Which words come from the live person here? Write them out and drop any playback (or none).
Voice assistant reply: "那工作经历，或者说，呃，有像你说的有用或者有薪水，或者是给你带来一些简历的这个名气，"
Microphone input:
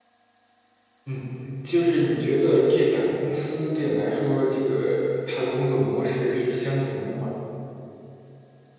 嗯，你就是你觉得这两个公司对你来说，这个它的工作模式是相同的吗？